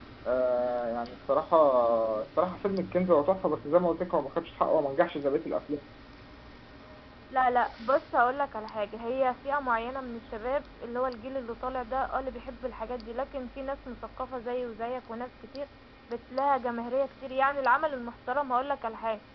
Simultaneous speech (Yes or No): No